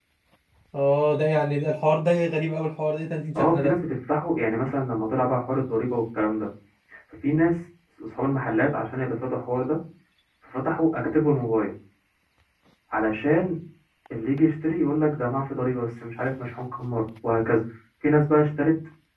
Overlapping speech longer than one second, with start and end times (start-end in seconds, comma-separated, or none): none